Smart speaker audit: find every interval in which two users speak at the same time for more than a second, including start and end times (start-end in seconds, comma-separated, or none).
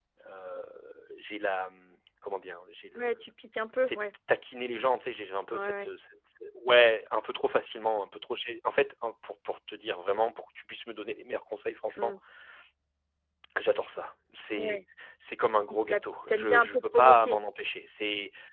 15.7-17.4